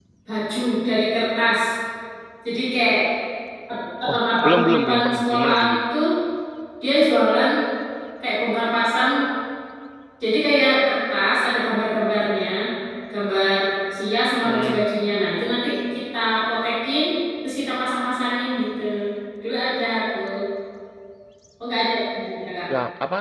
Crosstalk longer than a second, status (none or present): present